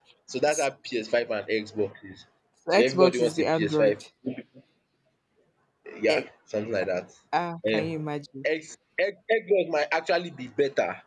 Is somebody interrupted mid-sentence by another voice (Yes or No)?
Yes